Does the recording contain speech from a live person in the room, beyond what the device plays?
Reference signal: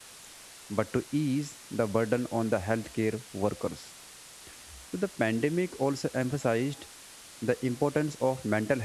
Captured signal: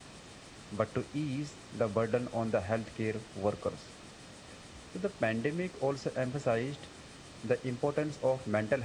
No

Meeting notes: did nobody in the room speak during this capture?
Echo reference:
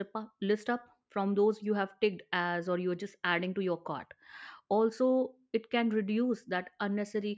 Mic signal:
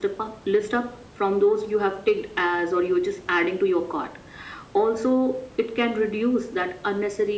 Yes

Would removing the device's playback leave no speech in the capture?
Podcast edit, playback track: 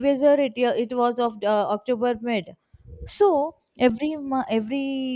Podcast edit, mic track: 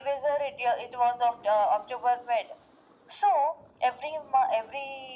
Yes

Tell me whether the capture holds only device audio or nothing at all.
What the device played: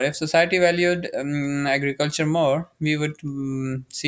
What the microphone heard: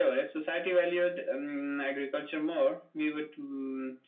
Yes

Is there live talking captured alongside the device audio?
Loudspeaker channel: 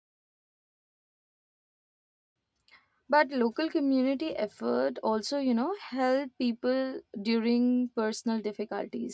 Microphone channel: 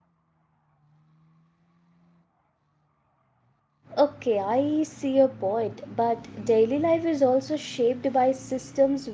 Yes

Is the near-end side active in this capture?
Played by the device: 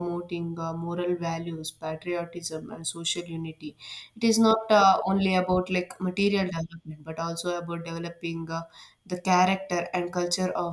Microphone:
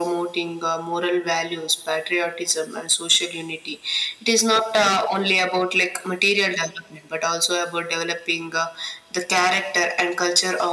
No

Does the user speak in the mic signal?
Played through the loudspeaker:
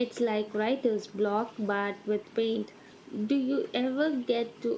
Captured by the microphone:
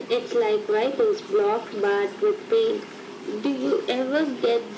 No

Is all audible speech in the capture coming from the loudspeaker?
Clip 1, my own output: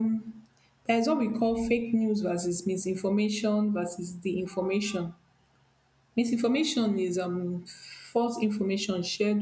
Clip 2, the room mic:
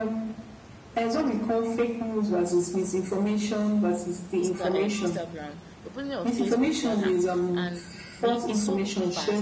No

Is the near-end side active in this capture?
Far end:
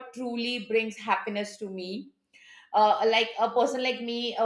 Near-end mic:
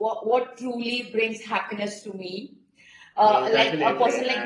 Yes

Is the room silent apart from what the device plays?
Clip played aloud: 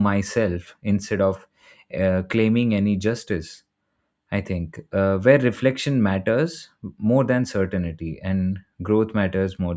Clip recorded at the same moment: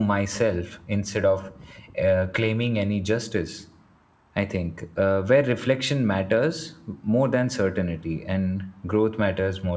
Yes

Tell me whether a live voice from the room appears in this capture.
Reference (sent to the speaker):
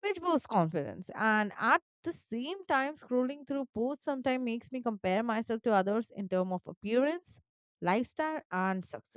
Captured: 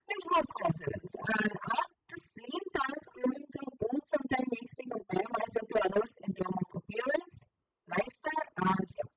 No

